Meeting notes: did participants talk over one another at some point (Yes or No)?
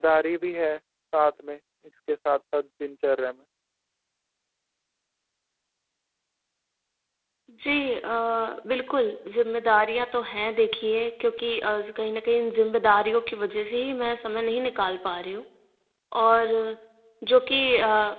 No